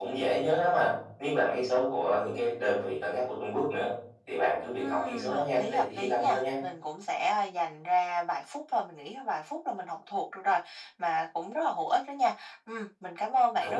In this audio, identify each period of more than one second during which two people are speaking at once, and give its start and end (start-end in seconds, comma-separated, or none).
4.7-6.4